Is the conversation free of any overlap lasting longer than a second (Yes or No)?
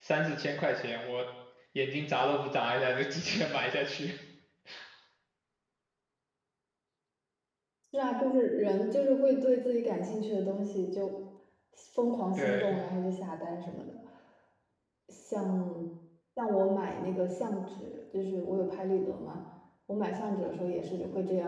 Yes